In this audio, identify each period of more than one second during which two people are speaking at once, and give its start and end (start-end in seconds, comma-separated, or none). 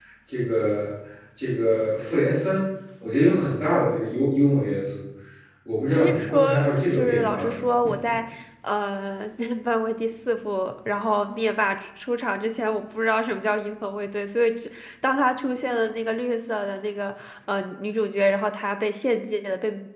6.0-7.9